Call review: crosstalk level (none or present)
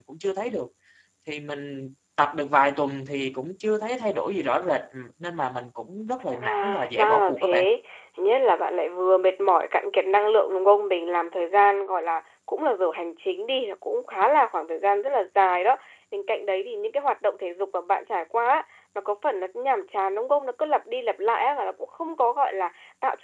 present